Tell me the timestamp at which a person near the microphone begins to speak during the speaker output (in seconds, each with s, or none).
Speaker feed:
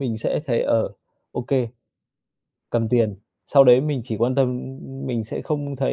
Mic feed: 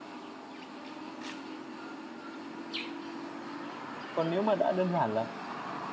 4.1 s